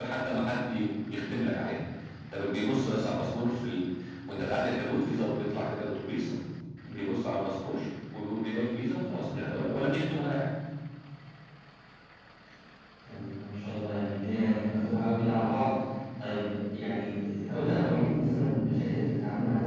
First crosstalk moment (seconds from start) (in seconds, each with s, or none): none